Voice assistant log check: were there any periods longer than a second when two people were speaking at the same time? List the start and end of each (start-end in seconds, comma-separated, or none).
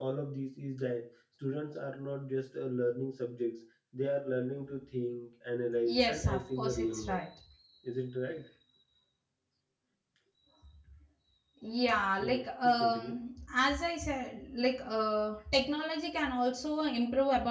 5.8-7.2